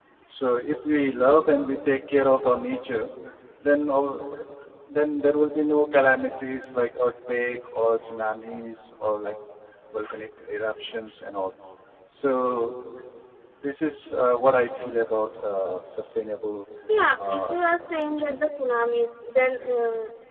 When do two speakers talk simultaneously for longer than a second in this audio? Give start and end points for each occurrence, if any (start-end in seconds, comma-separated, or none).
17.2-18.4